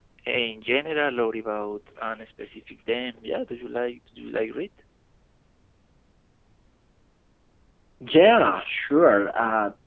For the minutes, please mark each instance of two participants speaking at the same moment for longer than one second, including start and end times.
none

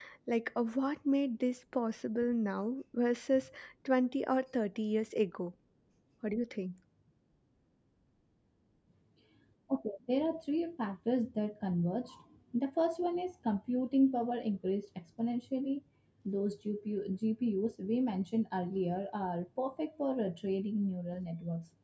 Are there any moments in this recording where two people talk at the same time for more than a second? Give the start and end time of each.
none

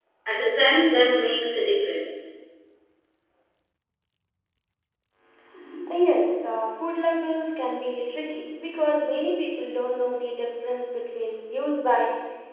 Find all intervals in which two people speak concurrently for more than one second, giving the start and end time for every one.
none

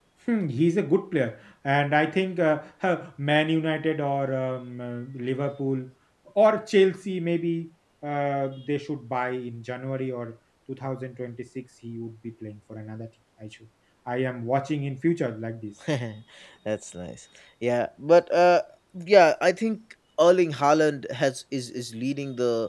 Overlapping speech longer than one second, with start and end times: none

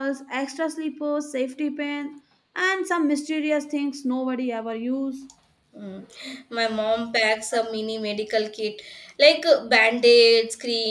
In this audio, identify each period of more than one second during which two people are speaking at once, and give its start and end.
none

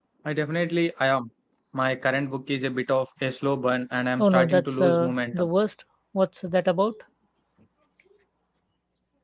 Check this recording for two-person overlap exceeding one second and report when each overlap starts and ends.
4.2-5.5

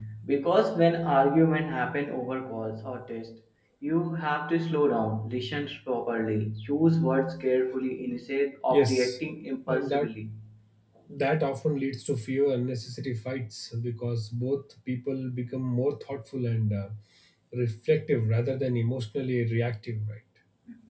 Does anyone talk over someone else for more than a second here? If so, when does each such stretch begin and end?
none

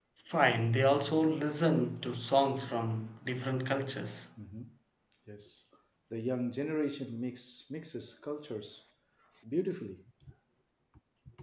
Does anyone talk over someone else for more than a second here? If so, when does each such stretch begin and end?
none

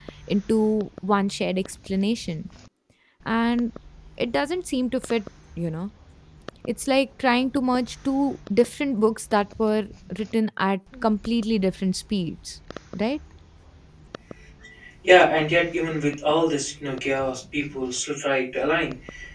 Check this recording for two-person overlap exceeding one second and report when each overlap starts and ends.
none

